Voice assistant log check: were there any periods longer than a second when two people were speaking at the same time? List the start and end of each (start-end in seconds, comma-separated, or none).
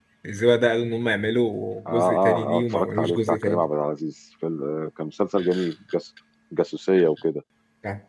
1.9-3.6